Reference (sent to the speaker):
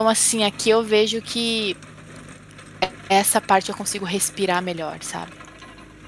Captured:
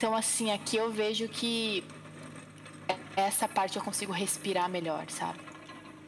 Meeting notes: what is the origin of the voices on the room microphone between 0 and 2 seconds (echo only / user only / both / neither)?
echo only